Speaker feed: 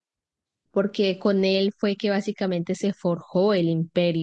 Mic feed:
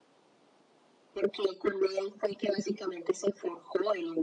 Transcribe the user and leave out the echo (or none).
none